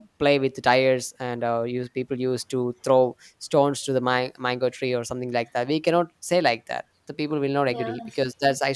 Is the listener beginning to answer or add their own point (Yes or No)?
No